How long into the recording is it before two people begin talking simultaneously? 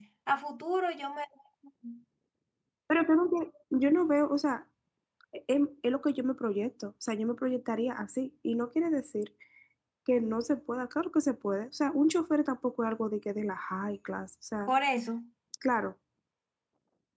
none

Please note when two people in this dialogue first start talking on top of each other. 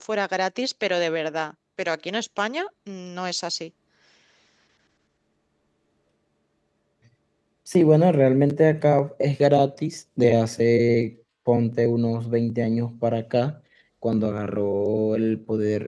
none

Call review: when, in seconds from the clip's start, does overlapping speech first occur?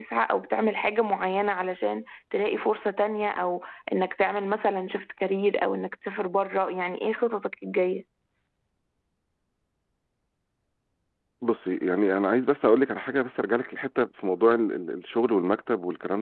none

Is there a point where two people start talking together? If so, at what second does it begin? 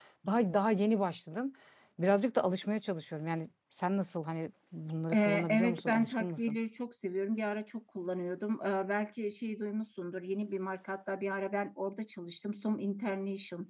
5.1 s

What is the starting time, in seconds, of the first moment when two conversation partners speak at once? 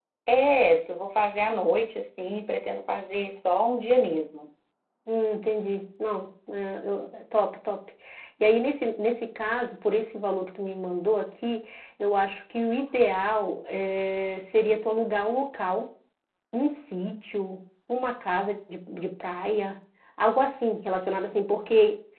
none

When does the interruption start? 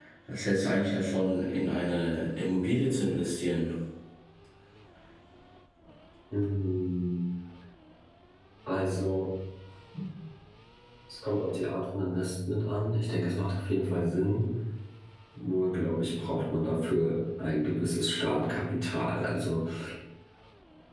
none

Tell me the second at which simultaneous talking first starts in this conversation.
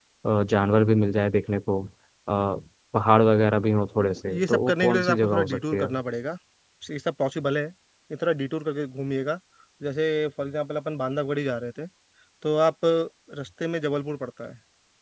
4.0 s

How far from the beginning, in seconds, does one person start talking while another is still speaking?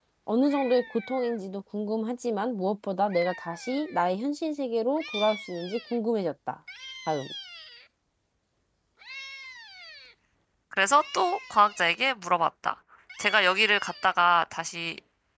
none

